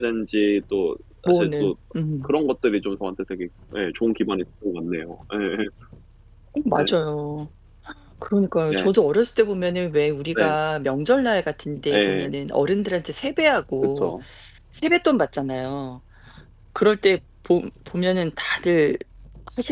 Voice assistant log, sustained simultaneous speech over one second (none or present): none